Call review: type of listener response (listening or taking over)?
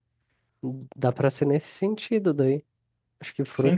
taking over